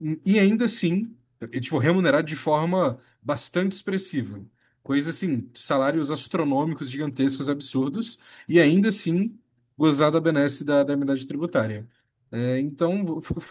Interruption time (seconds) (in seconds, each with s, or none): none